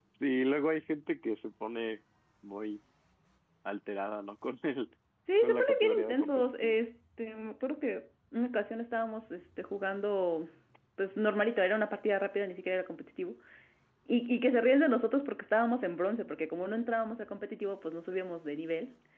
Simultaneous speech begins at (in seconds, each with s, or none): 5.4 s